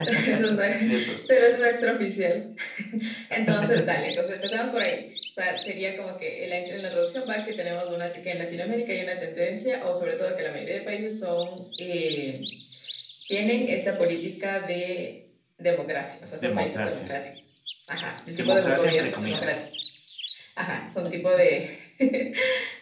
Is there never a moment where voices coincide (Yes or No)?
No